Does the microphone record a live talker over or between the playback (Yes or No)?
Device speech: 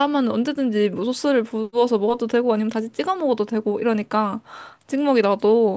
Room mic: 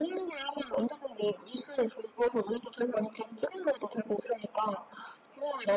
No